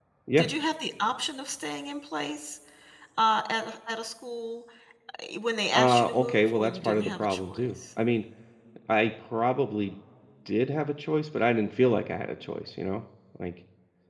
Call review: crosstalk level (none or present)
present